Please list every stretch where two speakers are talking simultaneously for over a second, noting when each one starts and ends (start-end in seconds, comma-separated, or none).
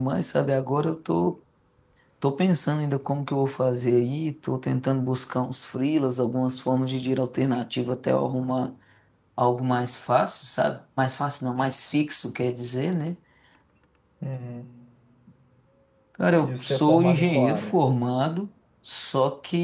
16.4-17.7